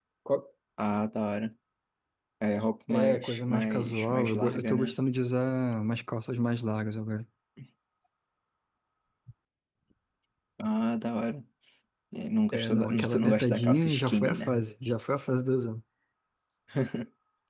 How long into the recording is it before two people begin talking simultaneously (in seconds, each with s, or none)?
2.9 s